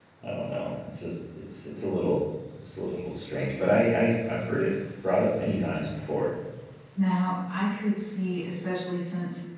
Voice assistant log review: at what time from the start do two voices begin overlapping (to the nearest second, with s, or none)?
none